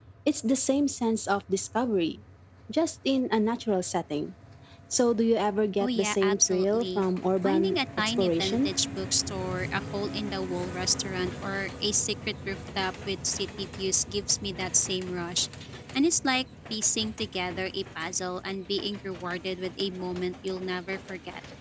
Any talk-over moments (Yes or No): Yes